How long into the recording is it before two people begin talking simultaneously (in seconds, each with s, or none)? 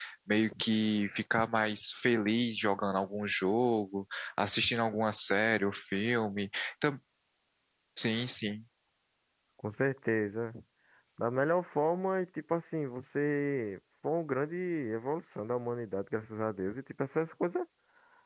none